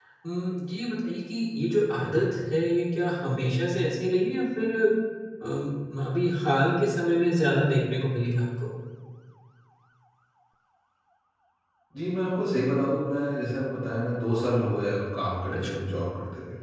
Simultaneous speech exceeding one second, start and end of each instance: none

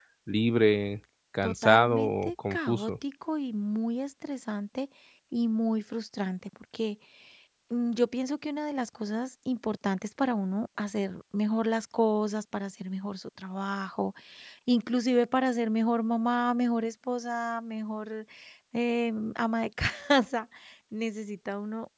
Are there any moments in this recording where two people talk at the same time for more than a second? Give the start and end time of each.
1.4-2.9

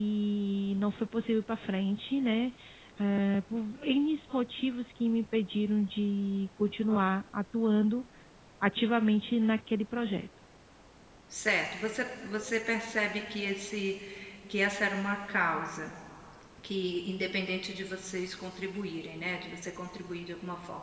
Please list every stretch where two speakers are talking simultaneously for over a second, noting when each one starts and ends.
none

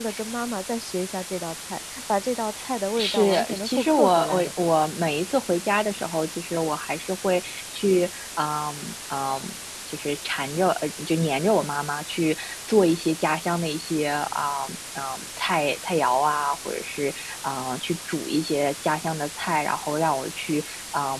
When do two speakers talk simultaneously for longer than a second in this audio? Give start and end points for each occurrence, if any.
3.0-4.5

